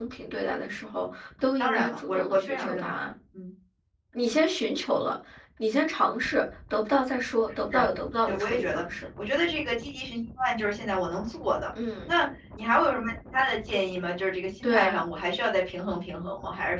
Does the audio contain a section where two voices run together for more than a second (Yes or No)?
Yes